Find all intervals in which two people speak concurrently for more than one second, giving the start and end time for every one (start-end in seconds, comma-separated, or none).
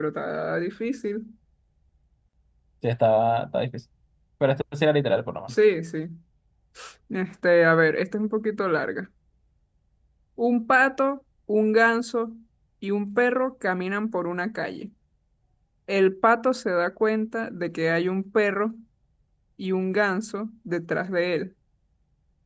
none